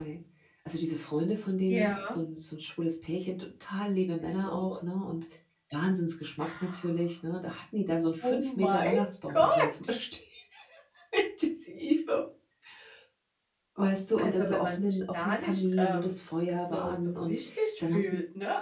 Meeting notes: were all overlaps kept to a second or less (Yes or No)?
No